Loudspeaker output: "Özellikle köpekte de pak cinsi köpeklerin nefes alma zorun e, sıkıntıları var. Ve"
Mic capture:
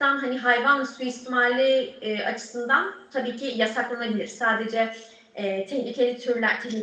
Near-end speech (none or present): present